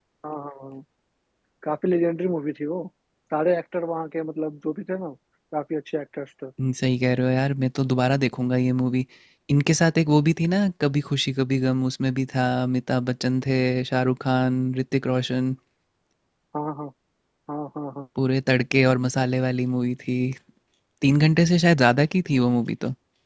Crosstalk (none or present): none